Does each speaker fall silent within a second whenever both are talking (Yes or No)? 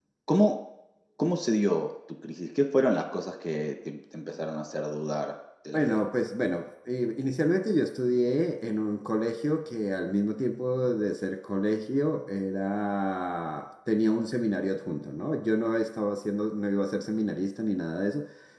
Yes